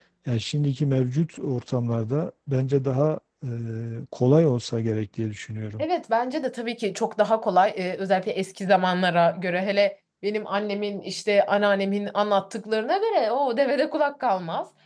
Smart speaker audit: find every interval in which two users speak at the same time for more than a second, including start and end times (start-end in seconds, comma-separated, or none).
none